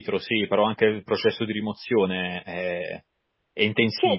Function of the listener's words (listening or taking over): taking over